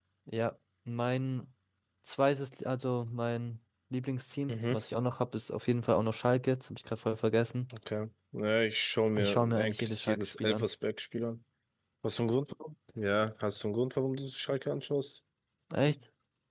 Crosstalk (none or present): present